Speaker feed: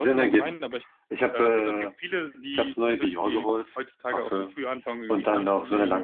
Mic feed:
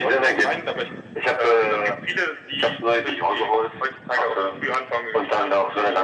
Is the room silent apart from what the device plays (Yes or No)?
Yes